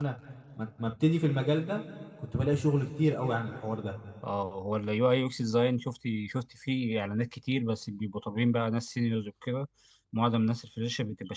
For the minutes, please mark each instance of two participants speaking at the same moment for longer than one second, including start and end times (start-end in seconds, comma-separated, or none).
none